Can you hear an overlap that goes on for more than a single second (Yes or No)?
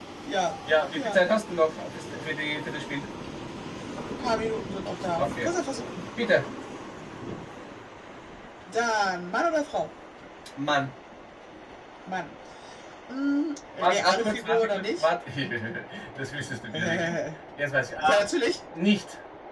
Yes